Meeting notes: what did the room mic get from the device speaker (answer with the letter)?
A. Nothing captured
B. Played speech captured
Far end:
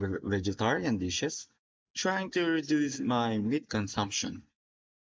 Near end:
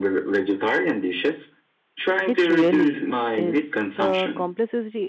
B